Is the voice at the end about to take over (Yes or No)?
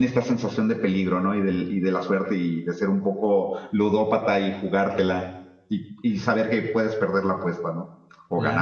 Yes